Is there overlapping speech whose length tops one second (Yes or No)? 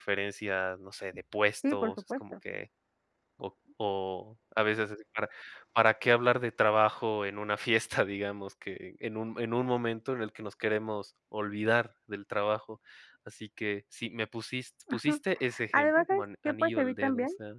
Yes